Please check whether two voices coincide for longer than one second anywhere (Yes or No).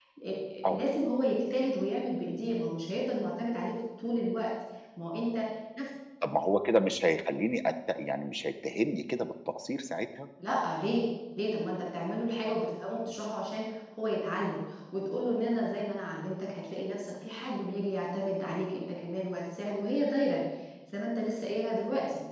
No